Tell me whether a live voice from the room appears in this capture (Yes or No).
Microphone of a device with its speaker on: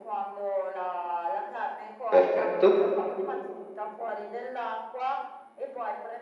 Yes